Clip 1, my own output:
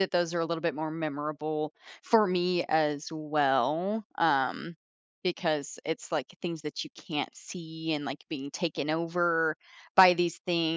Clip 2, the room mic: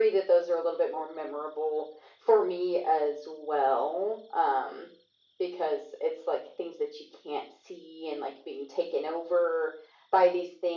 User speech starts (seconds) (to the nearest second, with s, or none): none